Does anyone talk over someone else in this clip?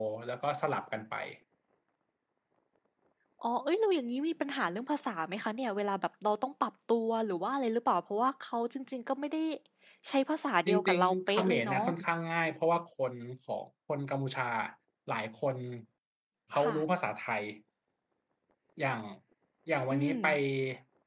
Yes, from 10.7 s

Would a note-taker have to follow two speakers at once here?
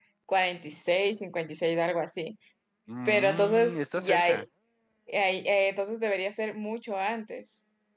Yes, from 3.0 s

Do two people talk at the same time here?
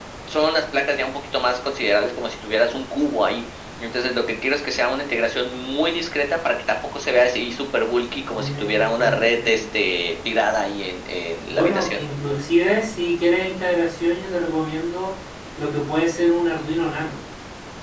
Yes, from 8.3 s

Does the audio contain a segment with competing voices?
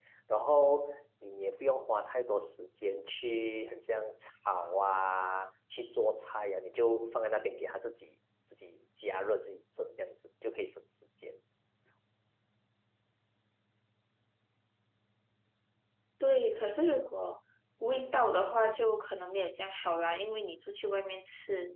No

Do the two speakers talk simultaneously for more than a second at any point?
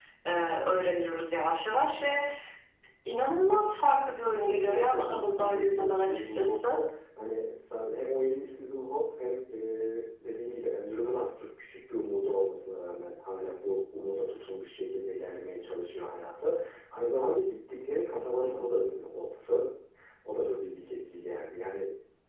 Yes, from 4.2 s

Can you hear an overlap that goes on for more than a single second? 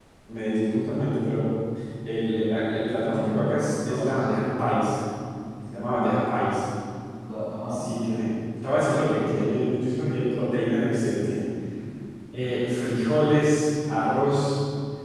Yes, from 3.1 s

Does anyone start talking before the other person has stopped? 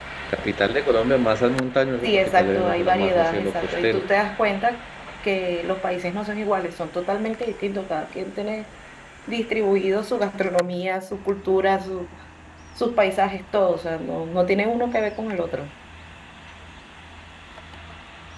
Yes, from 2.0 s

